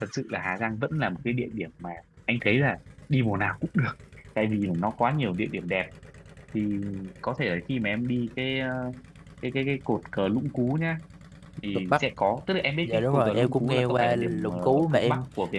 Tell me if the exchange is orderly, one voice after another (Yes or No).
No